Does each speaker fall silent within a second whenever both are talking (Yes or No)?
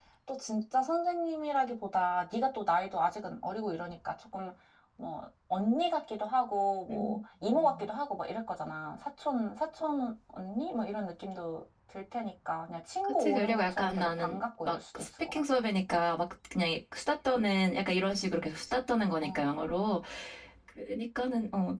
No